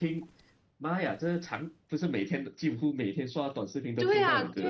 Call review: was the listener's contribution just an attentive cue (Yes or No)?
No